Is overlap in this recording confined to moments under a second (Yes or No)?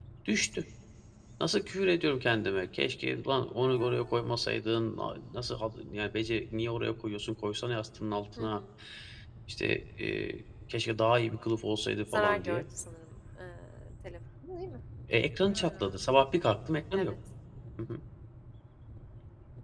Yes